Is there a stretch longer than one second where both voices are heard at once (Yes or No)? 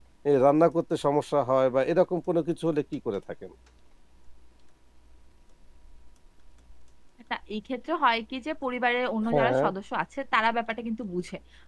No